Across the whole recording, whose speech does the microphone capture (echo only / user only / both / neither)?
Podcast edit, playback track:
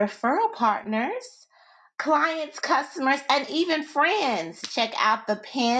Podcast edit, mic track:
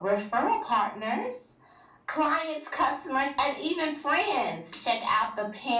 echo only